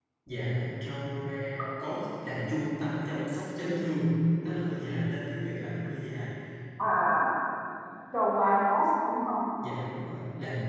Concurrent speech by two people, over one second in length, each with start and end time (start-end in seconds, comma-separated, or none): none